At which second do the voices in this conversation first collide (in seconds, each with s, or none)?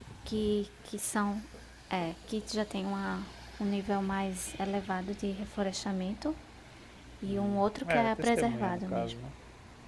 7.3 s